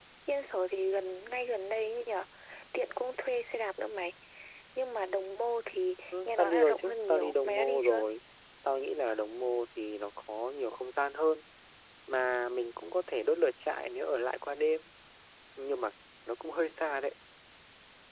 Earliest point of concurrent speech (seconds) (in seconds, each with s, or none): 6.1 s